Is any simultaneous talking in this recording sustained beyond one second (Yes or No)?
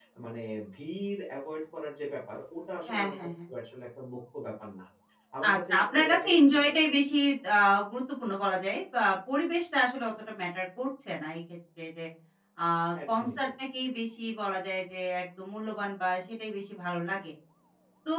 Yes